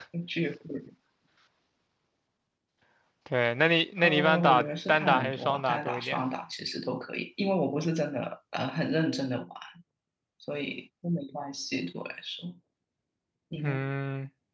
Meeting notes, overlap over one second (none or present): present